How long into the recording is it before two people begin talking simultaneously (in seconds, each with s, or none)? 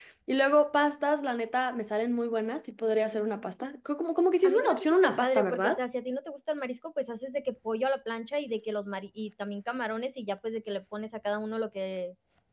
4.4 s